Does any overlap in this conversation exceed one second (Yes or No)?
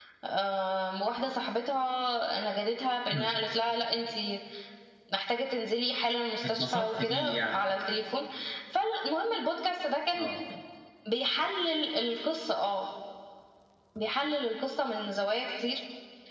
Yes